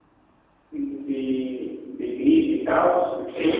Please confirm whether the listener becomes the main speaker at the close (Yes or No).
Yes